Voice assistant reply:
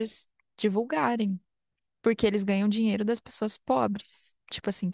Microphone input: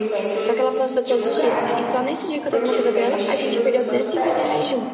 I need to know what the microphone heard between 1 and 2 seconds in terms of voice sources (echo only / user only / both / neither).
both